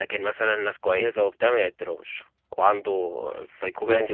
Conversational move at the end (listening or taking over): listening